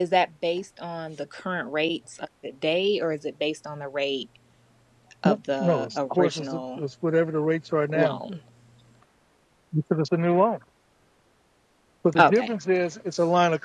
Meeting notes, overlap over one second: present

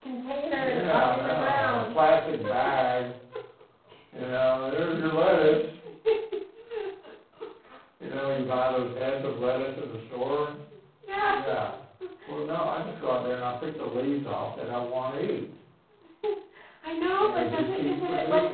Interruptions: present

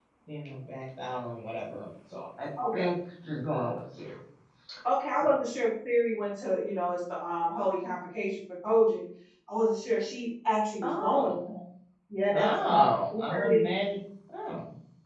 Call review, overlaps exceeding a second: present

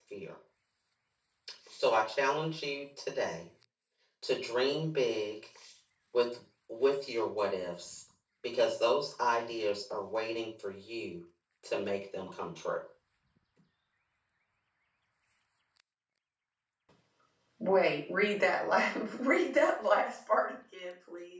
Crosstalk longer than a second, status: none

